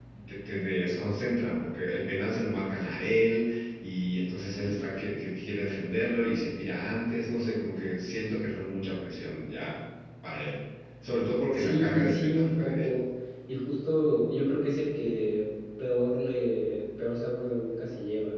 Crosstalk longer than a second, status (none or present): present